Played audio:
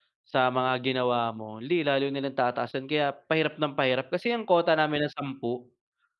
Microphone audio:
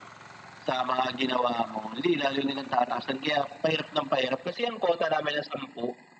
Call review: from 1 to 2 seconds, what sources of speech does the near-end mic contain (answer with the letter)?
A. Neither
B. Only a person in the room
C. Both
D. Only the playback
D